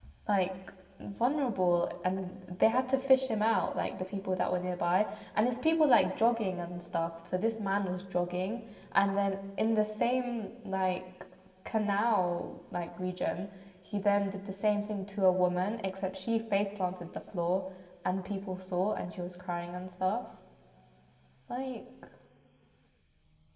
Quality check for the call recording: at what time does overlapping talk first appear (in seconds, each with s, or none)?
none